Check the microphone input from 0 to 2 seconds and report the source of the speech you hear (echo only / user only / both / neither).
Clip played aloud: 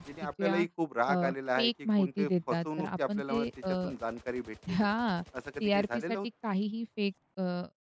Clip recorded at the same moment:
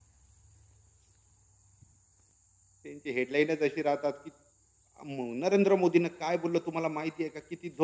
neither